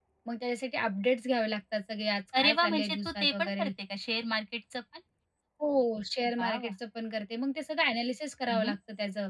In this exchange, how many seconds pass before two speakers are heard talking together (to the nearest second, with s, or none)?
2 s